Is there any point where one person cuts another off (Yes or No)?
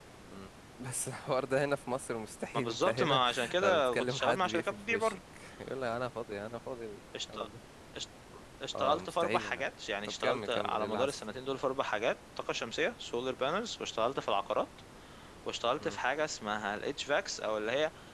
Yes